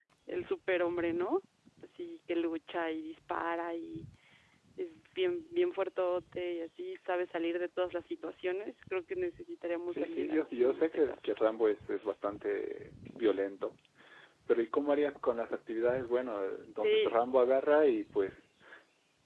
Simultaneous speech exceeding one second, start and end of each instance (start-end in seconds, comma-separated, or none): 9.9-11.3